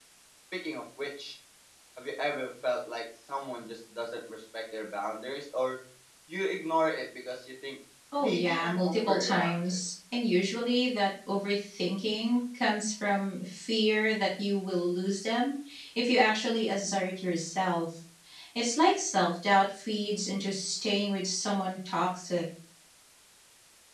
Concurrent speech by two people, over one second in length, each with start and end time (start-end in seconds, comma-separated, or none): 8.2-9.8